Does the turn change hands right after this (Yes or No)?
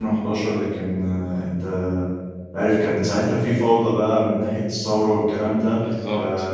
No